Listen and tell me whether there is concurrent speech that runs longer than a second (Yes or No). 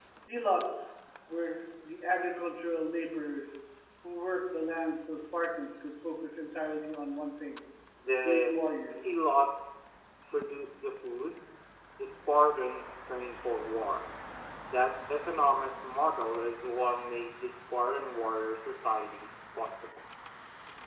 No